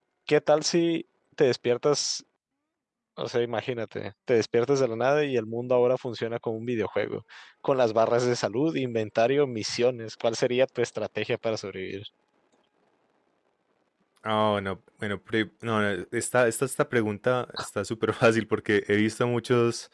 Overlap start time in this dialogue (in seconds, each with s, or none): none